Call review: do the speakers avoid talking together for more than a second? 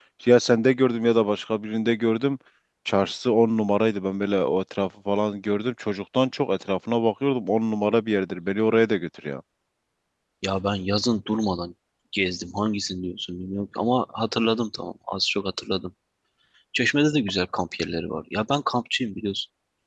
Yes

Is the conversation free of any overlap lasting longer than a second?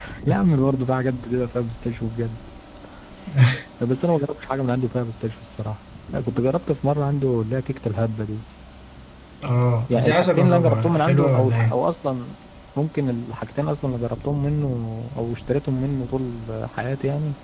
No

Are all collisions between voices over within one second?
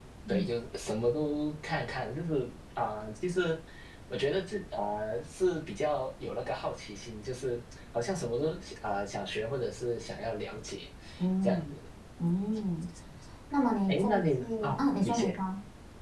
No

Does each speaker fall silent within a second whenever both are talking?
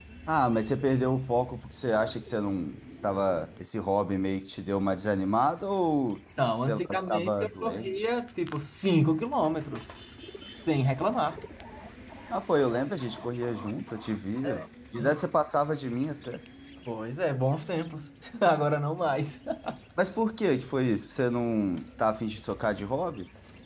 No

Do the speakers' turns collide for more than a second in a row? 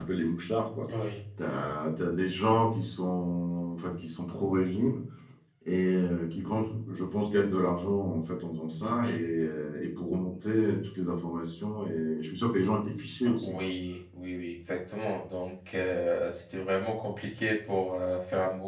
No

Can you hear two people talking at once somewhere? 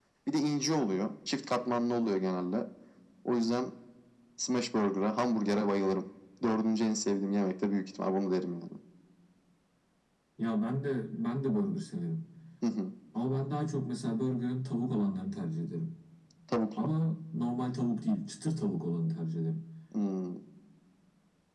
No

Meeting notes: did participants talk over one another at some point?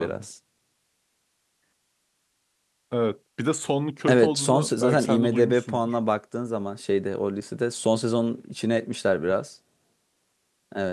Yes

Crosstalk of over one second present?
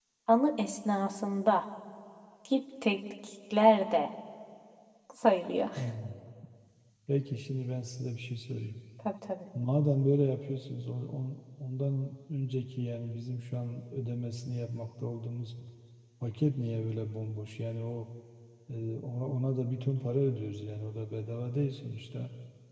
No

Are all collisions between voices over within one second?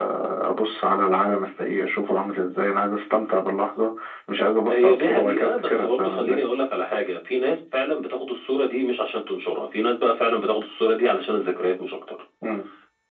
No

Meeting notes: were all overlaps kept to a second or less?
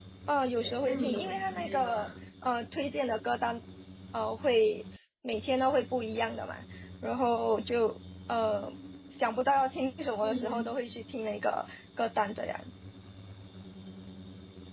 No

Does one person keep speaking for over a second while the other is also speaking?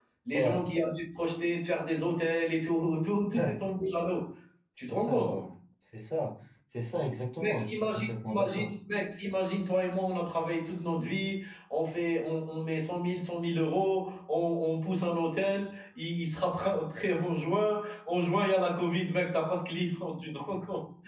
Yes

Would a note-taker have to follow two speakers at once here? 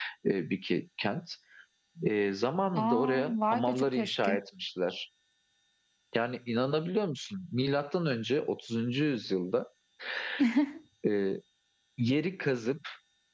Yes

